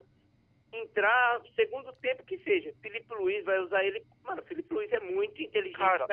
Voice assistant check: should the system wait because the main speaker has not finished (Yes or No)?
No